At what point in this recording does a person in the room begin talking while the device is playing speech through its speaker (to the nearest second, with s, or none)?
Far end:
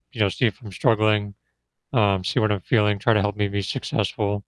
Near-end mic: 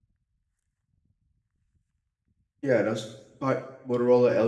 3 s